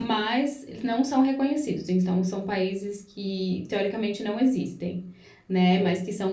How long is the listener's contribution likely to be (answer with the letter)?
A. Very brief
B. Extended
A